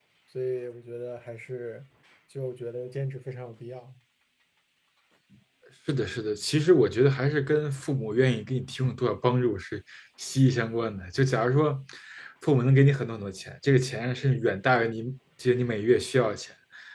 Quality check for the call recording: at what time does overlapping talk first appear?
none

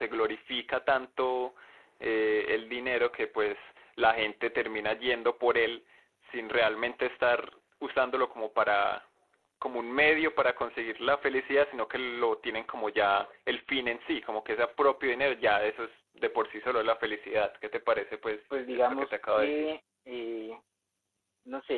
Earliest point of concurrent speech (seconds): 18.5 s

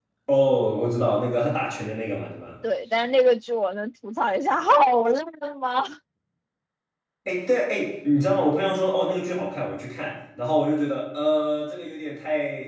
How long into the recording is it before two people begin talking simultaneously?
none

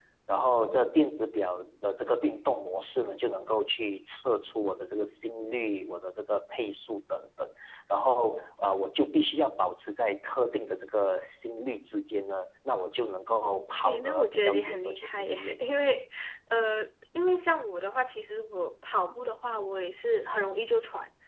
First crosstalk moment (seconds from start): 13.8 s

